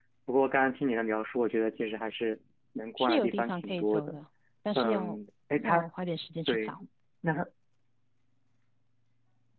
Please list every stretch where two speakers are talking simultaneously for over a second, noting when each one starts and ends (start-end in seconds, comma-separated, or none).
3.0-4.2